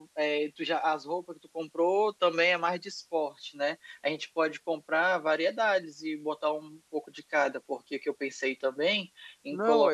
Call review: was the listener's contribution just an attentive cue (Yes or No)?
No